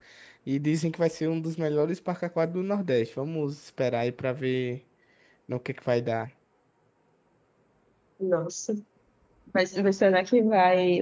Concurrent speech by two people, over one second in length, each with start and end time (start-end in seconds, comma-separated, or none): none